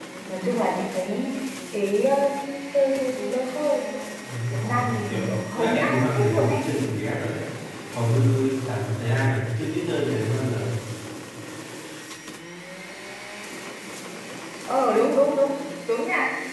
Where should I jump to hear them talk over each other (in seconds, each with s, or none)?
4.5 s